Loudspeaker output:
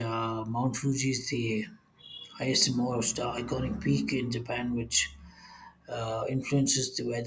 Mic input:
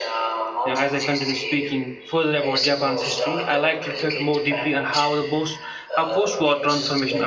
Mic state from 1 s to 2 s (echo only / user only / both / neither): both